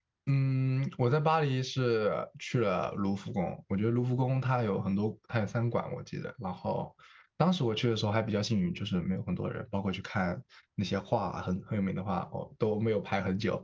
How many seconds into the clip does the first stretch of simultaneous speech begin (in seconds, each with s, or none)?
none